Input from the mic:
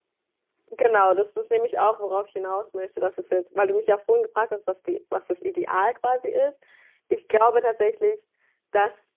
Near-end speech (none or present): present